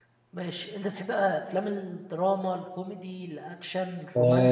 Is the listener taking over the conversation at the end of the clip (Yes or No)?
Yes